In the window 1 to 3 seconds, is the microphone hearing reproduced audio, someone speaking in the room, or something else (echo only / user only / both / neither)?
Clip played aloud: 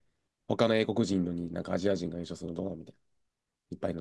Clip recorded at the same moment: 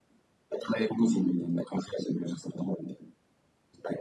echo only